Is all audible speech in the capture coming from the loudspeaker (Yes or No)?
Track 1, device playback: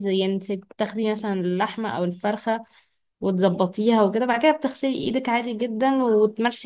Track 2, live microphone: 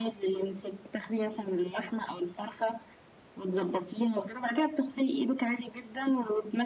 Yes